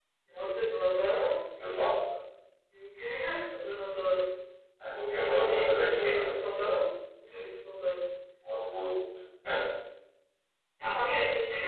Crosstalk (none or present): present